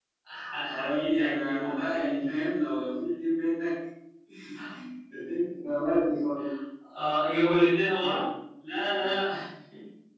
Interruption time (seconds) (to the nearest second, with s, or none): 1 s